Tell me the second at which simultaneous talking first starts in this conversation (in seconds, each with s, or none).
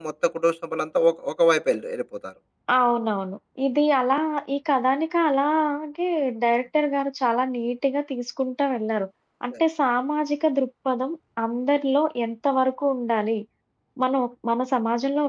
none